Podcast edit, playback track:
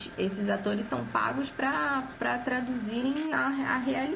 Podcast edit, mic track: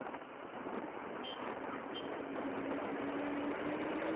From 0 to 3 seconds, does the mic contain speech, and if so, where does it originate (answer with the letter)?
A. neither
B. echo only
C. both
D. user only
A